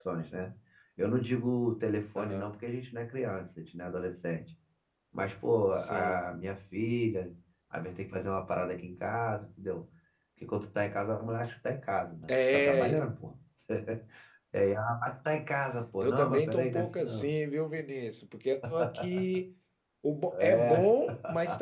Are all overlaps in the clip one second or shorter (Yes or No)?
No